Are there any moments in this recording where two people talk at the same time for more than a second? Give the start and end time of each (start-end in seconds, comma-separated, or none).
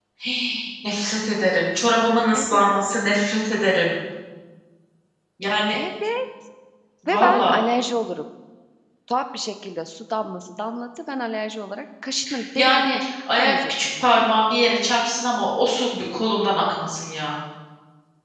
12.6-14.3